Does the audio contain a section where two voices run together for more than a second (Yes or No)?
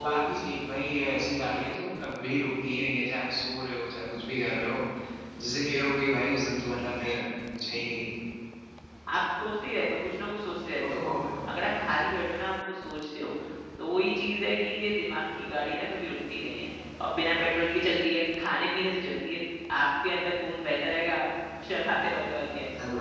No